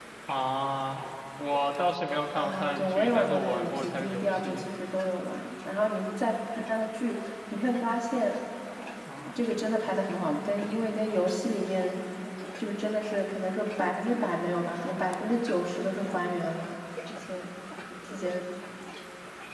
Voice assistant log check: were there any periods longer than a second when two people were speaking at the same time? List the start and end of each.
2.4-4.7

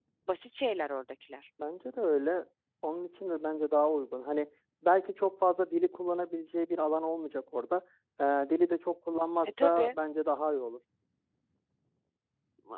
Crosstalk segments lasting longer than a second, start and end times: none

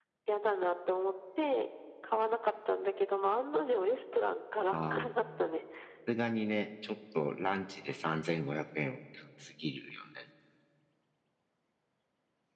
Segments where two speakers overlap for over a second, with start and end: none

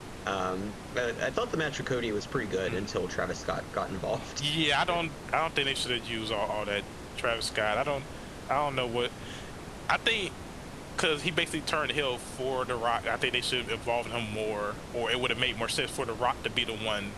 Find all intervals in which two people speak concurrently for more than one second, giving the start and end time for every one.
none

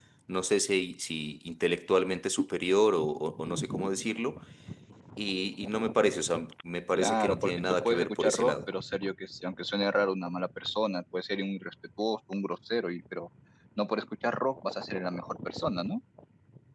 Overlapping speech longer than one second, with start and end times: 6.9-8.6

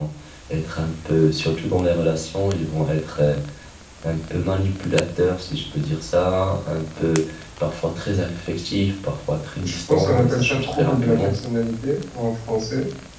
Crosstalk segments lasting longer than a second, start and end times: 9.6-11.3

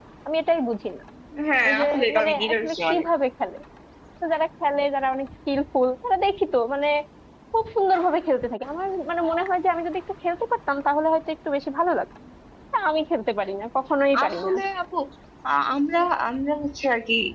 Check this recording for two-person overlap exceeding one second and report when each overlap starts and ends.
1.8-3.1

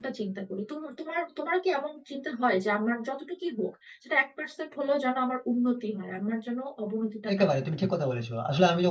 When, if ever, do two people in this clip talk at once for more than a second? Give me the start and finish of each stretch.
none

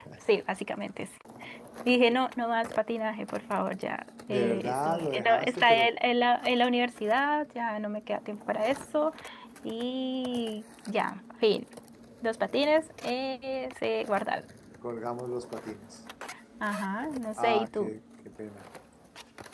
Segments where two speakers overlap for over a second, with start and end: 4.3-5.9

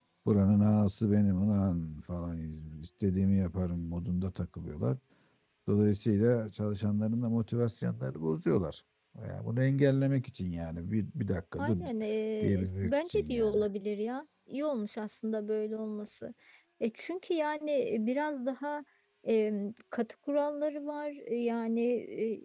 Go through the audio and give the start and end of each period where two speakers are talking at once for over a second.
12.4-13.6

